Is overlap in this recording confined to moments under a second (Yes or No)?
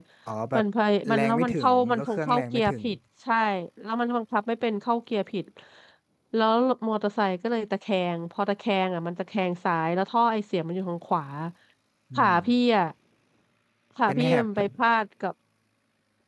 No